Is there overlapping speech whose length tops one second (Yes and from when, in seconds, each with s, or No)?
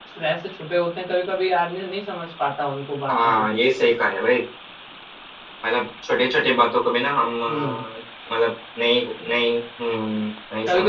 No